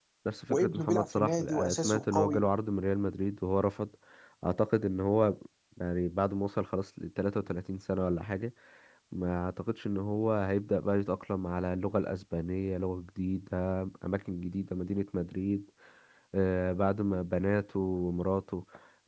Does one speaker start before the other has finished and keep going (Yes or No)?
Yes